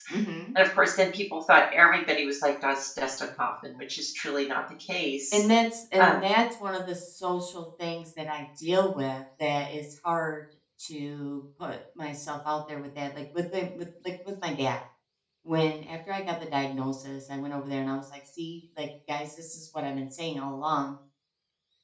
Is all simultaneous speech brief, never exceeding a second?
Yes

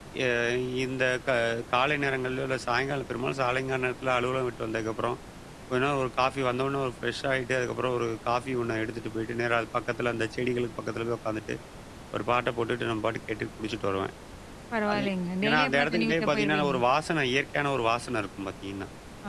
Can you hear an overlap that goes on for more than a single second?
Yes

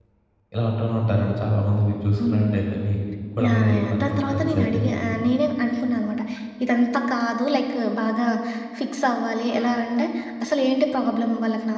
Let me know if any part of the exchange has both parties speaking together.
Yes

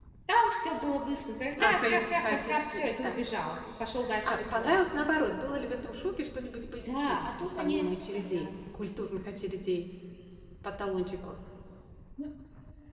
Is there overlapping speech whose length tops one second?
Yes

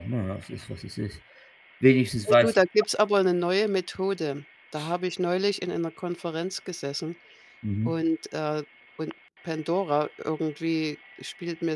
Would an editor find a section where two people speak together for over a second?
No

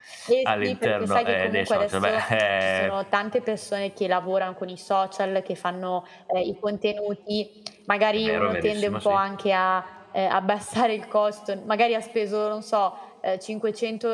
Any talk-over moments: Yes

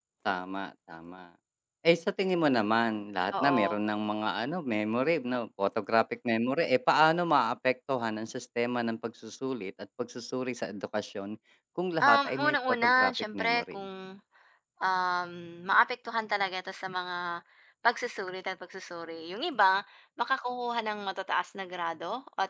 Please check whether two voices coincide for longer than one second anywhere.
Yes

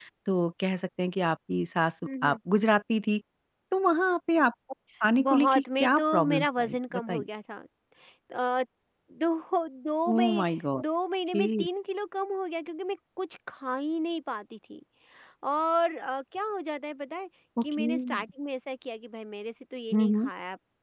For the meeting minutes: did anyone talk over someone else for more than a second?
Yes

